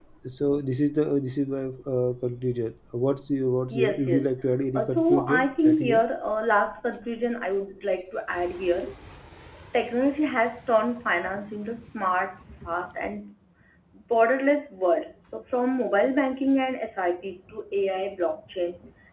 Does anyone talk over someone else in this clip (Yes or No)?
Yes